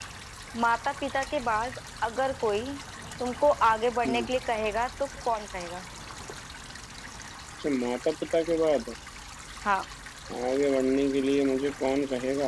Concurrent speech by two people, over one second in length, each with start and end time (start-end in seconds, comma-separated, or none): none